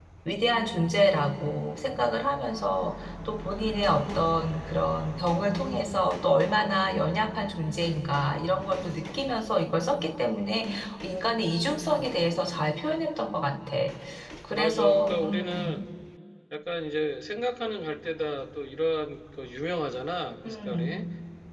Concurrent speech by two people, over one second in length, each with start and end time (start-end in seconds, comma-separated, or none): 14.5-15.8